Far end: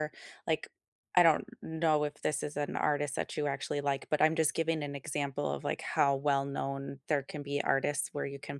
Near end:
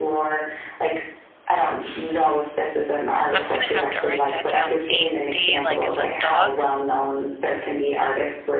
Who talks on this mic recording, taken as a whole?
both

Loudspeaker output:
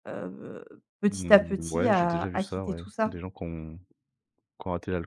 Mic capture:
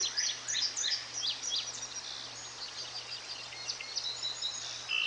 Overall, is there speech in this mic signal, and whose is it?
neither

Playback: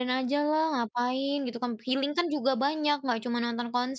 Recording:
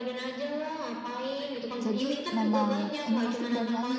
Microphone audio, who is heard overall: both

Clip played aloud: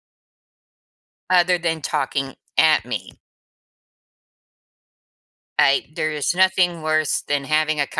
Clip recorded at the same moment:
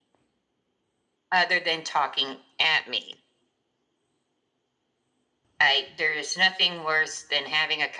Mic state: echo only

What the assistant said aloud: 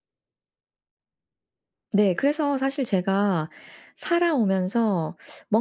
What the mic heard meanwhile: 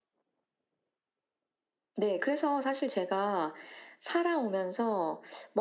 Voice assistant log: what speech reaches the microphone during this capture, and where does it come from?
echo only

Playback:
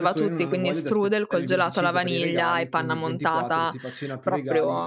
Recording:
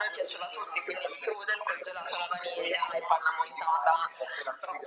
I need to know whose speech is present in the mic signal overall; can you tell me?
echo only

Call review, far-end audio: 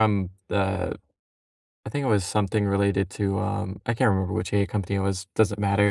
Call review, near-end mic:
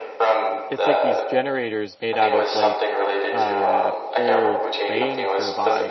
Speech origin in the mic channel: both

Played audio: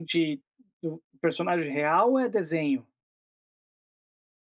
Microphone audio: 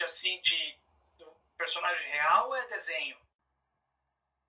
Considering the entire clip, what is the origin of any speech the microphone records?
echo only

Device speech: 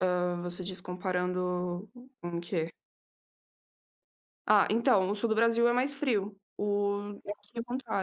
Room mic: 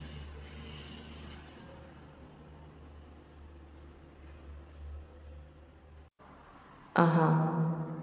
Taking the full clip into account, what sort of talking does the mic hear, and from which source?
user only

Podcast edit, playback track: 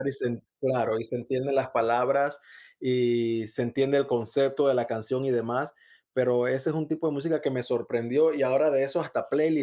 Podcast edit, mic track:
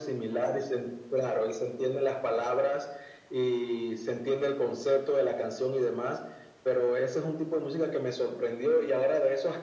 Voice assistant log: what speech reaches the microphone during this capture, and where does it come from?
echo only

